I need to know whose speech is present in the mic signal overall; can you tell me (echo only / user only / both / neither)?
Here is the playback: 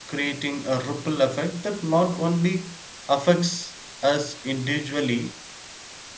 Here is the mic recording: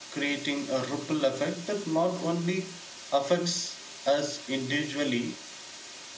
echo only